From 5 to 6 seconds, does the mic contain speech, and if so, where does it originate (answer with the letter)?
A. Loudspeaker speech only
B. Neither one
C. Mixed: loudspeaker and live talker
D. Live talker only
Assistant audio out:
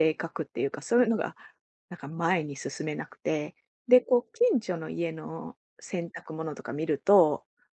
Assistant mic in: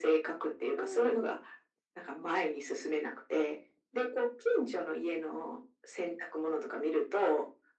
A